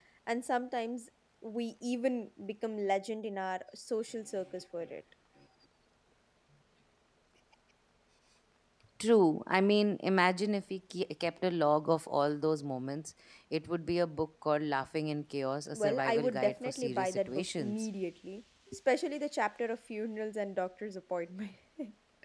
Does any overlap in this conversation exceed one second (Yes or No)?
Yes